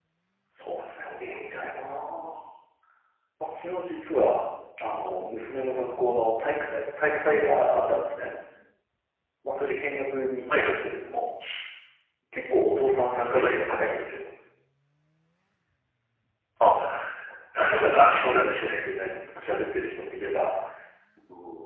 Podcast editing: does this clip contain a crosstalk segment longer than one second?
Yes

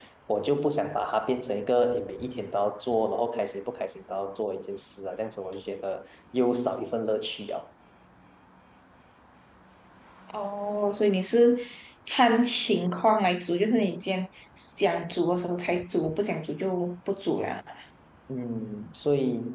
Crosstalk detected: No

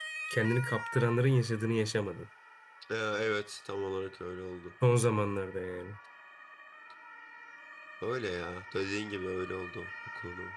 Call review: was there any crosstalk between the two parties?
No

